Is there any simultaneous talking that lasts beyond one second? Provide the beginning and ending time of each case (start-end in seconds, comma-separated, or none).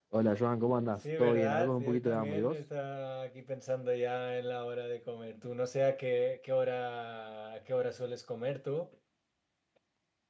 1.2-2.6